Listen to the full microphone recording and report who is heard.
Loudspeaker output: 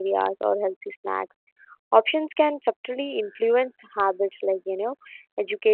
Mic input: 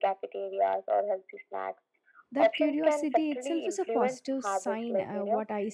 both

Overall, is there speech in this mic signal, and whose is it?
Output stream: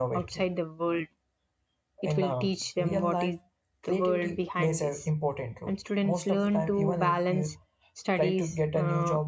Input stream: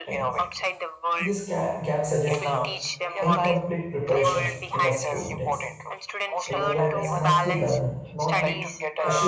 both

